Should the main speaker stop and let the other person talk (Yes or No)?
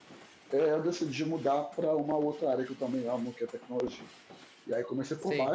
No